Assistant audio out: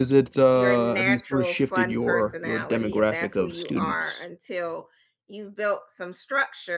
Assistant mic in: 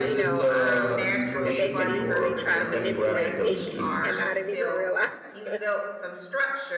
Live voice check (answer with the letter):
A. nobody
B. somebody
B